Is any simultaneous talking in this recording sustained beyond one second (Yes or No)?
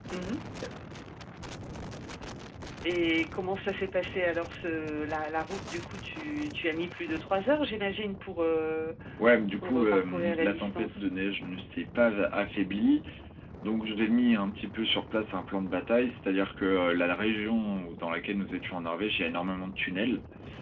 Yes